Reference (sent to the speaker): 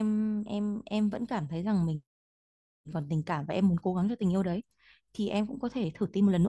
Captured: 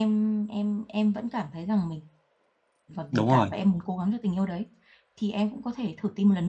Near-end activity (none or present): present